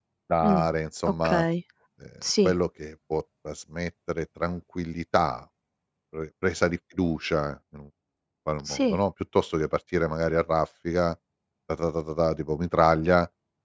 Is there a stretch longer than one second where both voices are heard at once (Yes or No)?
No